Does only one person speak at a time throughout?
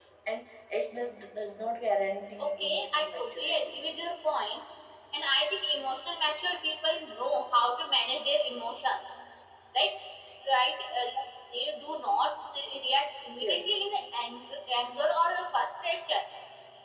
No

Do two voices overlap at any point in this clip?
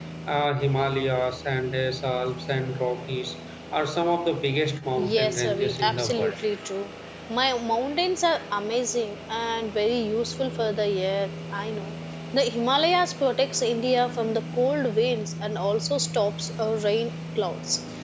Yes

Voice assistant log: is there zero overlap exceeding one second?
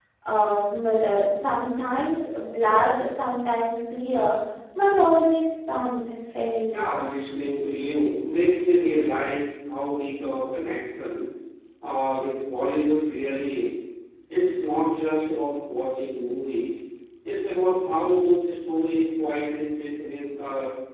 Yes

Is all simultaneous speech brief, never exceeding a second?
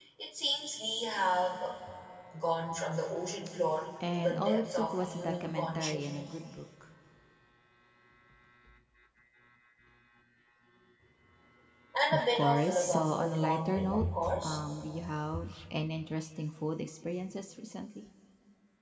No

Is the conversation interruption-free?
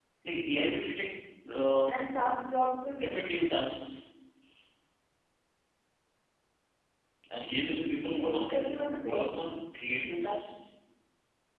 No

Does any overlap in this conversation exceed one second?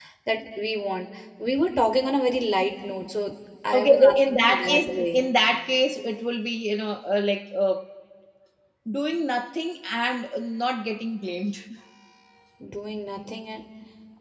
Yes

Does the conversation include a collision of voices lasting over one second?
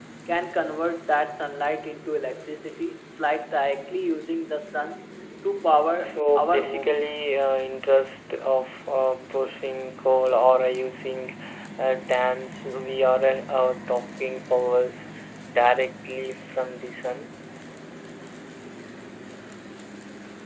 Yes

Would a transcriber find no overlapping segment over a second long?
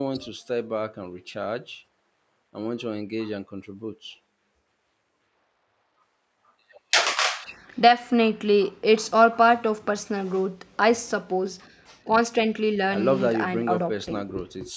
No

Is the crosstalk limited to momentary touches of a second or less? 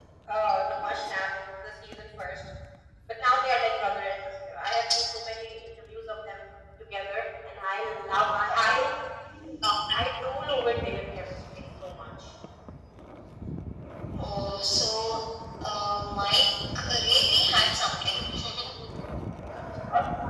Yes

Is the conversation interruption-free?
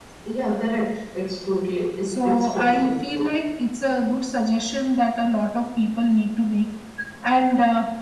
No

